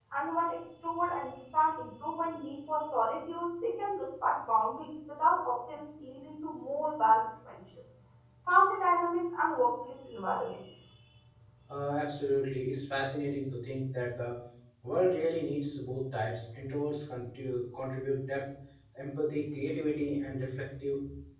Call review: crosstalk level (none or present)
none